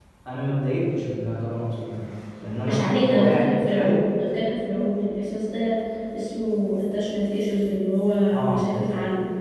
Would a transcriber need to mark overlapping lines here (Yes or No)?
Yes